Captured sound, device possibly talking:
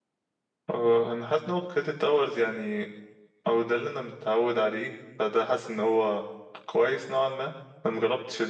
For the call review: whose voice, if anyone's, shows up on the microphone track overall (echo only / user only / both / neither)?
user only